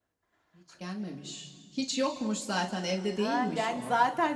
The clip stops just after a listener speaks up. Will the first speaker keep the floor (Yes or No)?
No